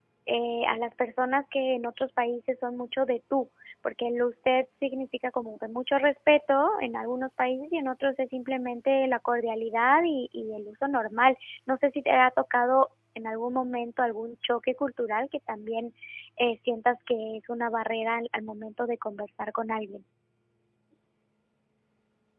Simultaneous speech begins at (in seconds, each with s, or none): none